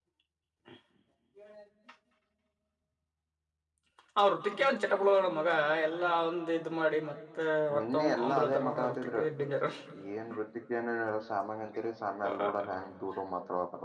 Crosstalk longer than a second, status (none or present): present